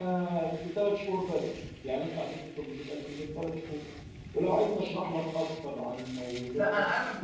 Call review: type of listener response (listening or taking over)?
taking over